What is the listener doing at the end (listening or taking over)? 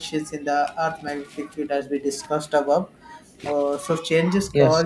listening